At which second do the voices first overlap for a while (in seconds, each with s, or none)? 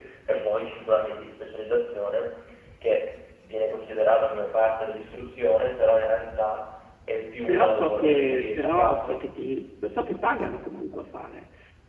7.5 s